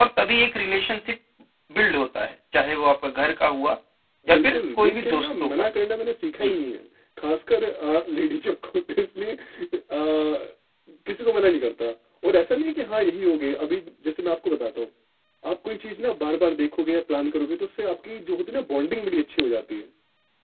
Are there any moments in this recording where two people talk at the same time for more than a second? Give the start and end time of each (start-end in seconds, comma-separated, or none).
4.3-5.7